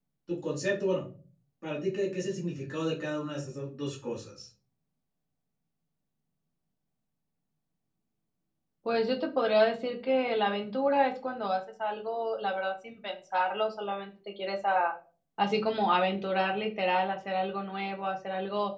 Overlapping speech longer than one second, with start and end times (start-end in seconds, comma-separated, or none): none